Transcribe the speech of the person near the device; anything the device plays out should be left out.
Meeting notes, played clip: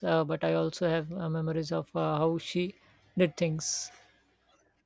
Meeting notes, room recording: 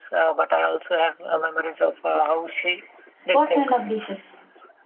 What kind of dishes?

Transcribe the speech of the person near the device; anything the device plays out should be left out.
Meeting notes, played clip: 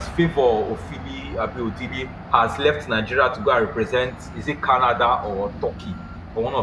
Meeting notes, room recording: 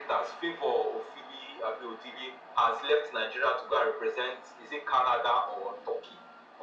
none

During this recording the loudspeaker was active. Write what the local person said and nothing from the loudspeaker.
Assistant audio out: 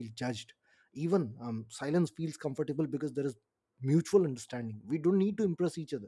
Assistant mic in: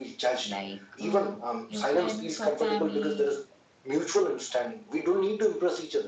Like uh, your friends or family?

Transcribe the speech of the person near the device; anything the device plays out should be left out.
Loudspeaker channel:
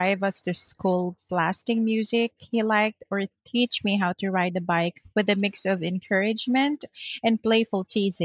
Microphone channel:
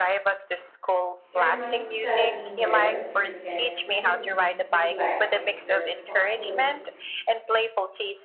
It reminds me that being there for your kids doesn't mean neglecting your responsibilities

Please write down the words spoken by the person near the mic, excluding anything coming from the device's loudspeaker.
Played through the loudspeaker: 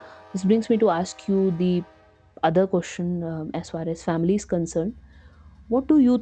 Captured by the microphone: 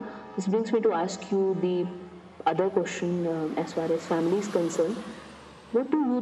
none

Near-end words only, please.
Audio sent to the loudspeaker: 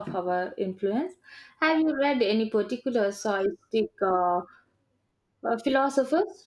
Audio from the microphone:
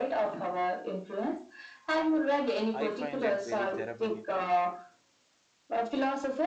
I find it very therapeutic.

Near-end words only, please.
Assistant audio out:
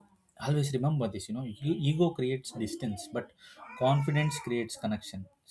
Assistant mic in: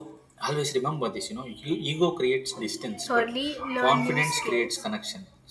Thirdly, learn new skills,

